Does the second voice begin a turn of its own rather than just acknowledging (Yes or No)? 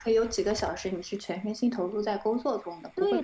Yes